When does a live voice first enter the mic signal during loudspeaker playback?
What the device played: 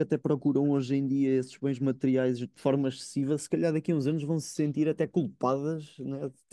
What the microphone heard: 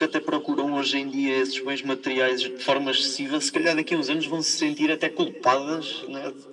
none

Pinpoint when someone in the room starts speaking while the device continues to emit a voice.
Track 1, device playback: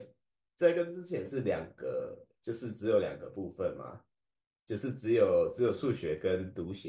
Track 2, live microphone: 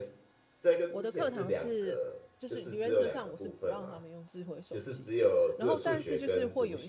1 s

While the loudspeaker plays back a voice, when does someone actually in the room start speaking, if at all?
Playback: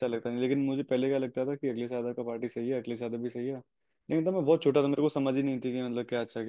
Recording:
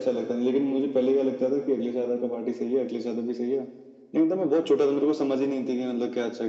none

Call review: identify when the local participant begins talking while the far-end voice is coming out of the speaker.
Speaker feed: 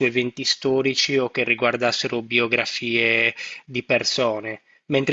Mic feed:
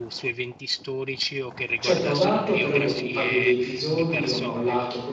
2 s

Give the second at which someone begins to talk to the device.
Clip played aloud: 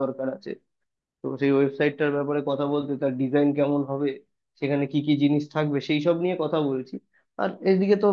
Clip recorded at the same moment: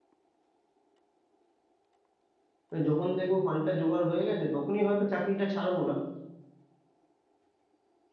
3 s

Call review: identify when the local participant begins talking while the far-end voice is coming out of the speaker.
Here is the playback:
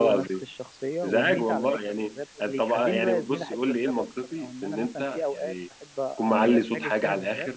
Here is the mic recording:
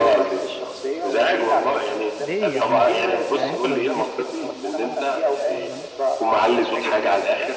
2 s

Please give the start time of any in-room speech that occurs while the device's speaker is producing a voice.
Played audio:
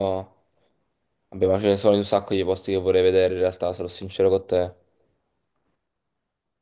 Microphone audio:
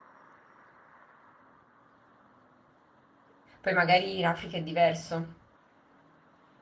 4 s

